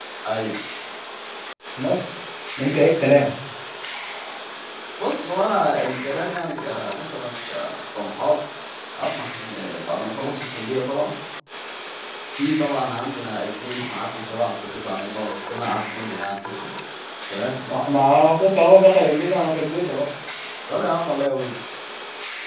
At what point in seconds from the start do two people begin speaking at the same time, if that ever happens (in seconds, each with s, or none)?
none